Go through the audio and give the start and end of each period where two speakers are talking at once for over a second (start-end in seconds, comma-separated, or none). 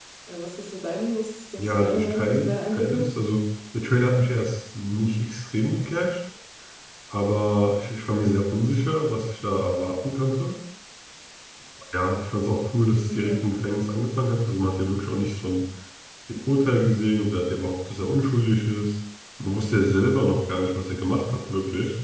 1.6-3.1